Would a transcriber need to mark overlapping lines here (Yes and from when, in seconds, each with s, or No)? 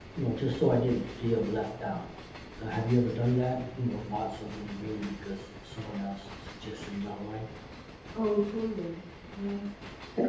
No